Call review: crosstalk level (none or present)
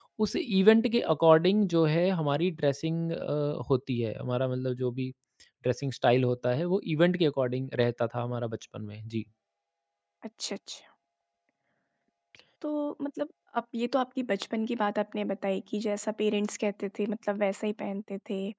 none